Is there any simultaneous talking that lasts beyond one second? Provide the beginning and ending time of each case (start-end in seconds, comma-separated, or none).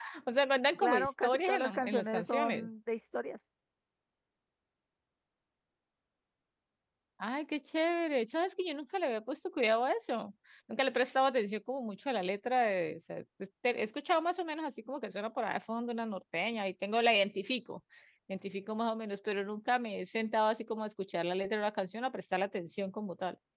0.8-2.7